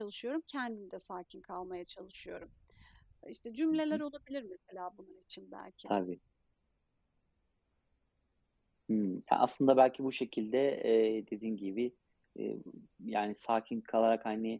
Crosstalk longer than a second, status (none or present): none